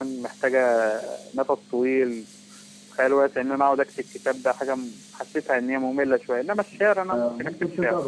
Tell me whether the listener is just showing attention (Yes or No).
No